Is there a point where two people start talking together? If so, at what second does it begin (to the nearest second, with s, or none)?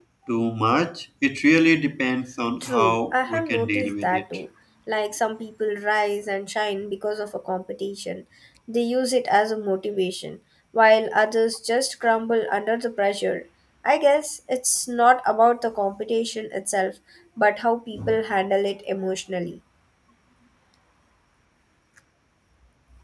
3 s